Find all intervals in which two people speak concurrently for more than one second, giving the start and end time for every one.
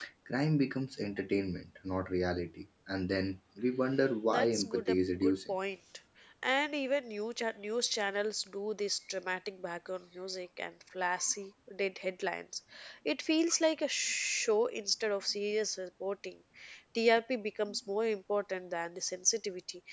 4.3-5.5

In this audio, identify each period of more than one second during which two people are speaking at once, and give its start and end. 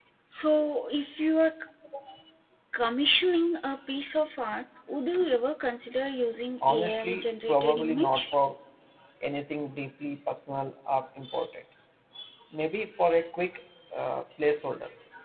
6.7-8.3

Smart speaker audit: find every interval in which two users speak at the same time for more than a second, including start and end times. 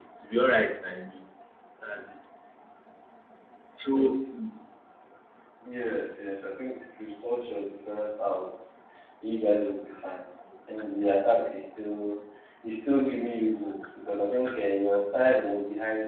none

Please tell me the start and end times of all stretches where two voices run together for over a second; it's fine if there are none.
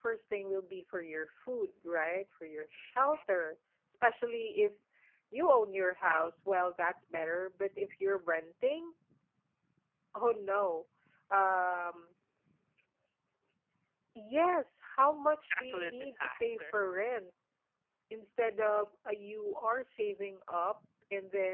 15.5-16.7

